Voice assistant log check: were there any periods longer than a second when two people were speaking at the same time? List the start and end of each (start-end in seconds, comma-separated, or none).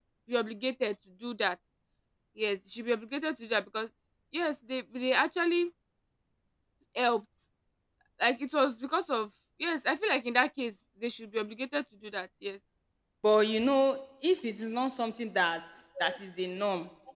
none